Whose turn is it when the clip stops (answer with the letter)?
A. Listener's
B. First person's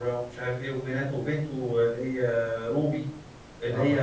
B